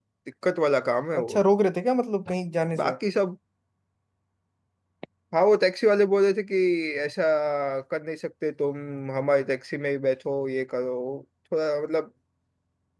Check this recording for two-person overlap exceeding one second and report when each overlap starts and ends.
none

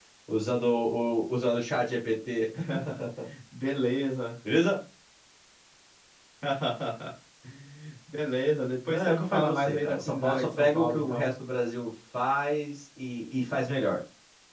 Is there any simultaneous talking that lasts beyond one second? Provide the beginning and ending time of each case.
8.9-11.3

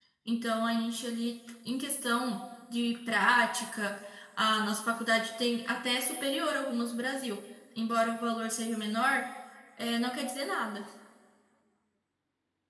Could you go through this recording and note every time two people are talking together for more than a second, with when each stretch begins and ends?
none

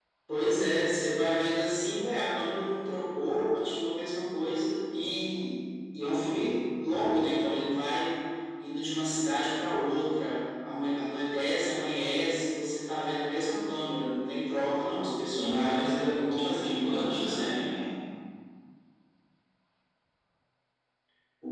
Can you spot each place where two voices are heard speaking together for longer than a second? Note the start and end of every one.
15.3-17.6

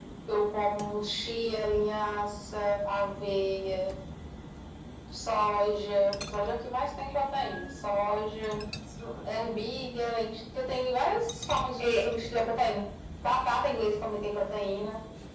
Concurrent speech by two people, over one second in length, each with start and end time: none

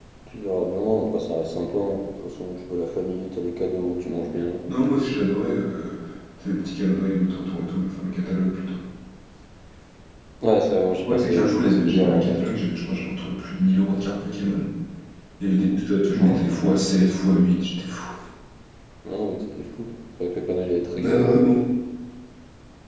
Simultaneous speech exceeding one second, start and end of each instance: 11.0-12.6

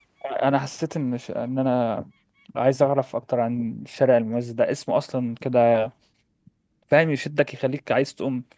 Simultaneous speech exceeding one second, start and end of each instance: none

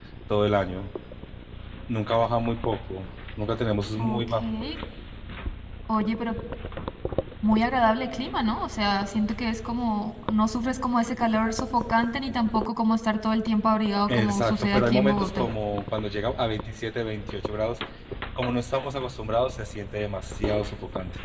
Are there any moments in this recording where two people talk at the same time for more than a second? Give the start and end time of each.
14.1-15.5

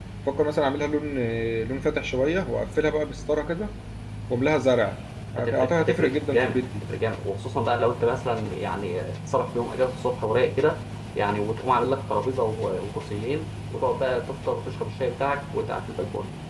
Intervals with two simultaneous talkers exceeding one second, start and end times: 5.4-6.8

